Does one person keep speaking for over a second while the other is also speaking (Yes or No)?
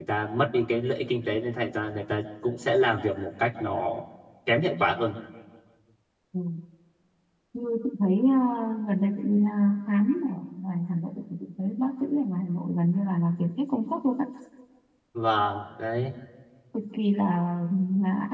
No